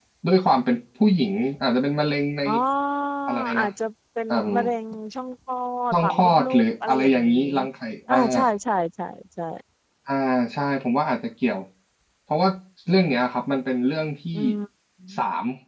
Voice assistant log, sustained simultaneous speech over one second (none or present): present